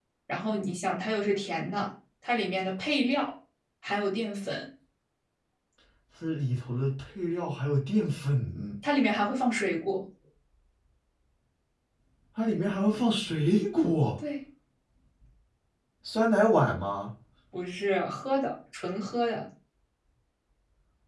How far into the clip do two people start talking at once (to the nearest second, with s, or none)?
none